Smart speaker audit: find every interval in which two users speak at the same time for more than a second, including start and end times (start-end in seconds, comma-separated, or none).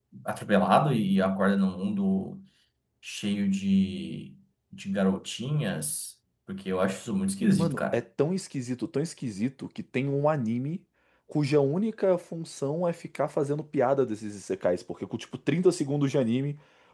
none